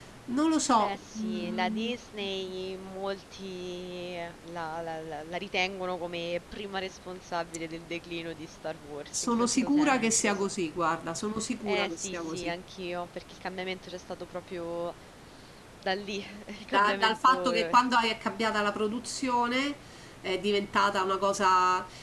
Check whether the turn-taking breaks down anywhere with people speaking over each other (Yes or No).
Yes